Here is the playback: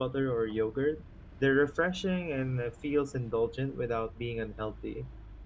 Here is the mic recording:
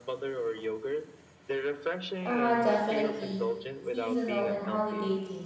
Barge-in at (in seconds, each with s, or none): 2.2 s